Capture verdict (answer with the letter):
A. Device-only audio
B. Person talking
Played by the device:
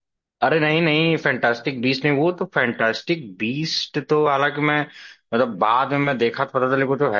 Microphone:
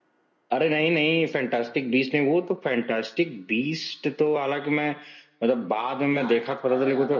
B